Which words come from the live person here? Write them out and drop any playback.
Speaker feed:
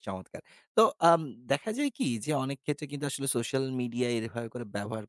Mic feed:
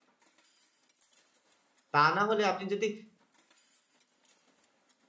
তা না হলে আপনি যদি

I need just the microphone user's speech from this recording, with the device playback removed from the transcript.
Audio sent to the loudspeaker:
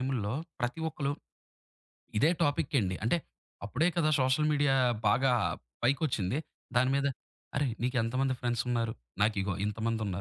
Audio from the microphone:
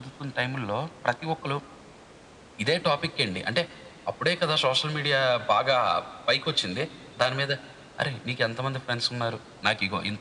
none

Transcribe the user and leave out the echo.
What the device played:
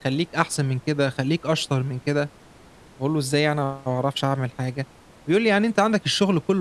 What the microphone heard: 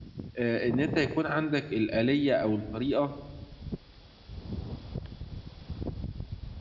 آآ إن أنت يكون عندك الآلية أو الطريقة

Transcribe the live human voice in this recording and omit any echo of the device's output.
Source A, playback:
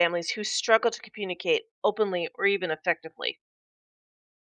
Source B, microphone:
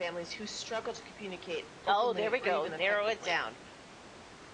oh, there we go. Narrow it down

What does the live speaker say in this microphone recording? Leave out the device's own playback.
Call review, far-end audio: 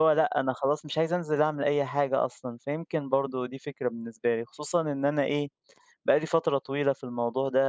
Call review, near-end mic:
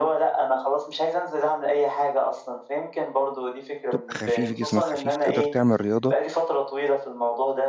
تبقى خفيف جسمك خفيف، تقدر تعمل رياضة

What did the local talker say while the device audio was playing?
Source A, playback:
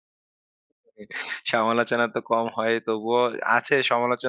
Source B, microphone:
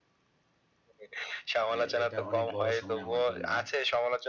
এ এটা অনেক বড় সময় আমার জন্য।

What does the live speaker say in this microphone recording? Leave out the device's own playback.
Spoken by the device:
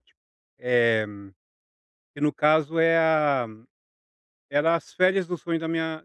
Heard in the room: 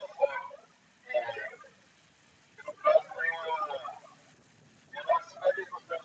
none

